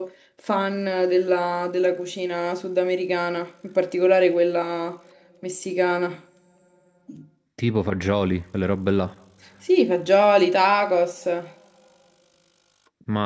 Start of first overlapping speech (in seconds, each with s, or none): none